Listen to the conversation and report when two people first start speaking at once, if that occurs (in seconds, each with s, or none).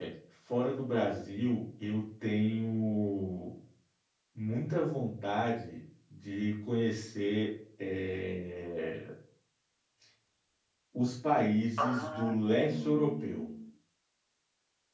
11.8 s